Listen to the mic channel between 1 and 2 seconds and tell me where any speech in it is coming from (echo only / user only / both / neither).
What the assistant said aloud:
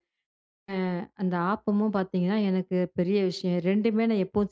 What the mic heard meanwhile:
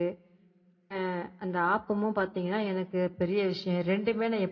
echo only